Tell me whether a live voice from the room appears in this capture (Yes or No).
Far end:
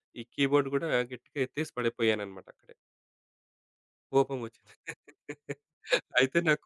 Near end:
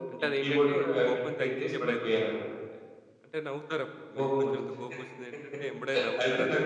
Yes